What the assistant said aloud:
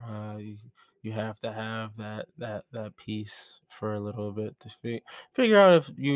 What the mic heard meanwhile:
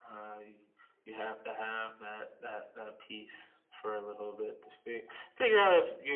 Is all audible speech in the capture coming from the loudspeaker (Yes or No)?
Yes